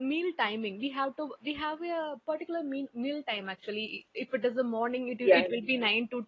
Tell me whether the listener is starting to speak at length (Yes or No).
No